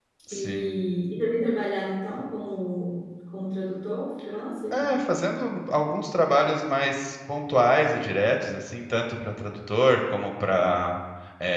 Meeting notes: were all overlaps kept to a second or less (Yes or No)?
Yes